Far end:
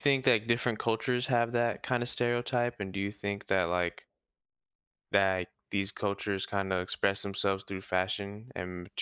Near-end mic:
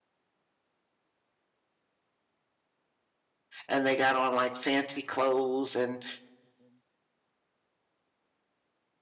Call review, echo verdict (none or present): none